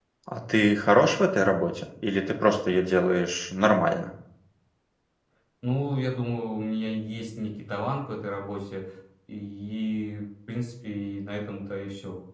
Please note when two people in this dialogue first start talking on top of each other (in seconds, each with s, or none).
none